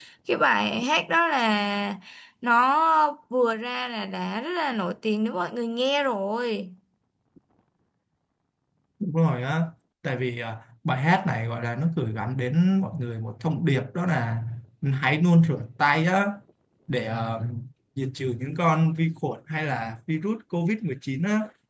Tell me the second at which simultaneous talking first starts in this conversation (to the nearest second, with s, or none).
none